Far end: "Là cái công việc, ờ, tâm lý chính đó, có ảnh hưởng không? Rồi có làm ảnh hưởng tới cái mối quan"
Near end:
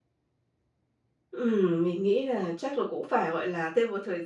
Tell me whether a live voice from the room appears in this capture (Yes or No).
Yes